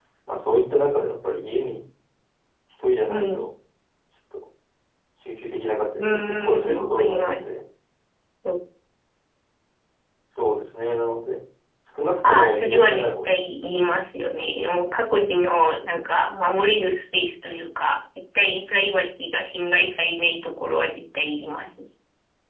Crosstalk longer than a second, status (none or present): present